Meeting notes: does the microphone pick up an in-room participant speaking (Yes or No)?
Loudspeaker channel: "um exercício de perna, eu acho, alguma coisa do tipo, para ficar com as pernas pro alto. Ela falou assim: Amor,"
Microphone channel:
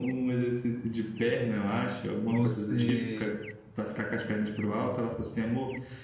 Yes